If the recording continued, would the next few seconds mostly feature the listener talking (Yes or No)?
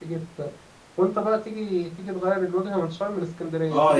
Yes